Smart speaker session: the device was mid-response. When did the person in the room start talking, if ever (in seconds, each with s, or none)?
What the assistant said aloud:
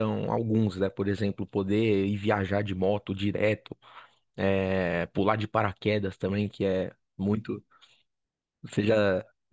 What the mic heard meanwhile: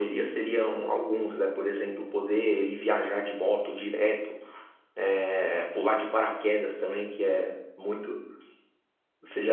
none